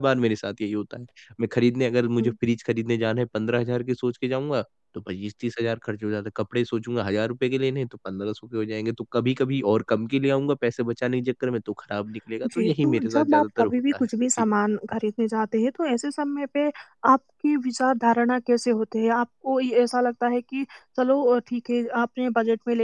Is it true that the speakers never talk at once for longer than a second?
No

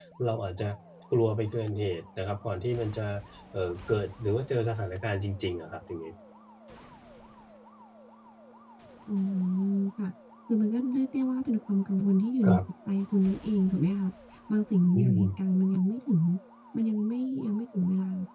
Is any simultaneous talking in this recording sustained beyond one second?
No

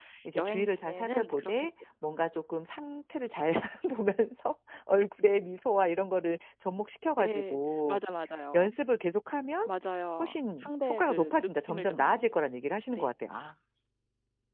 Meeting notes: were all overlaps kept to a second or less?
No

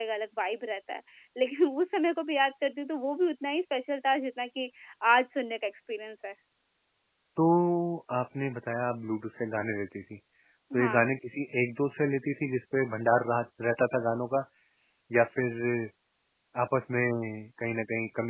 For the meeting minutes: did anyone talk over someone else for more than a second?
No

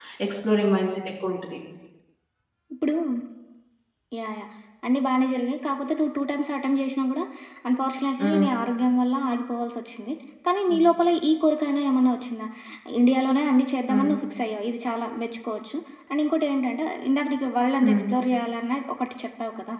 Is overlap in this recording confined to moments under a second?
Yes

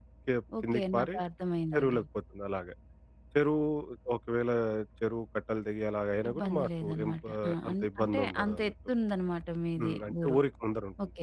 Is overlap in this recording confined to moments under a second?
No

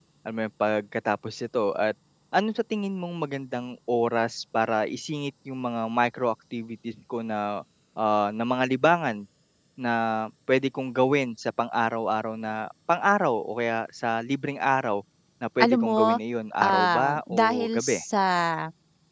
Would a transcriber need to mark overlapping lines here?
Yes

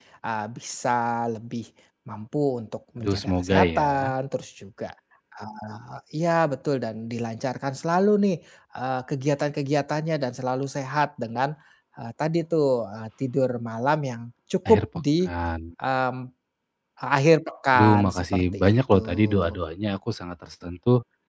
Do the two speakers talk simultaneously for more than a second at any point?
Yes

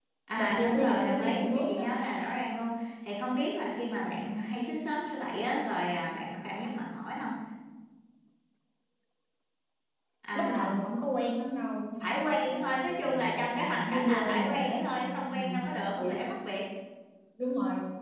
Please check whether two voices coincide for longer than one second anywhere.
Yes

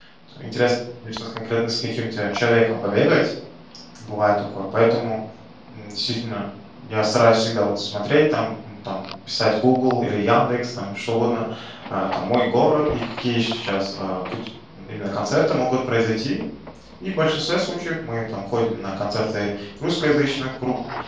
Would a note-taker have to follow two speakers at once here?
No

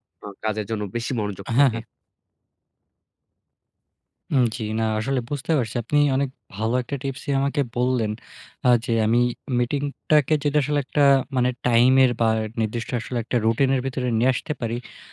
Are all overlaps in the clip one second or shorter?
Yes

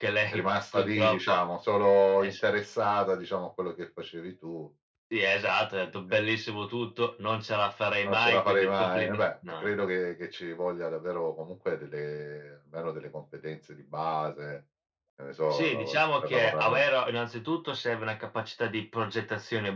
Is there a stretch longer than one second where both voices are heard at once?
Yes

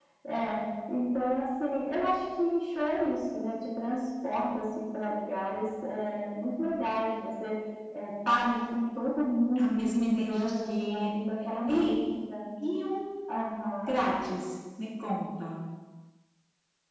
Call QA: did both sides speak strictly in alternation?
No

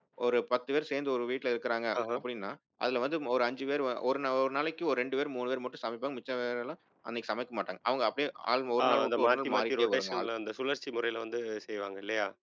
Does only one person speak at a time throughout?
No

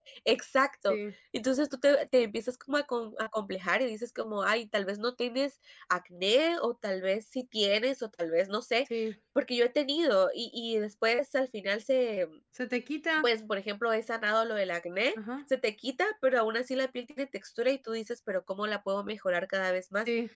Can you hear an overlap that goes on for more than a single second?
No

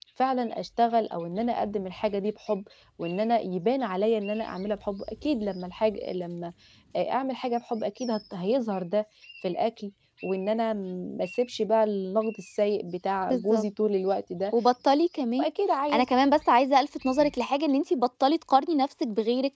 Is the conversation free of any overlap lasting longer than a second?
Yes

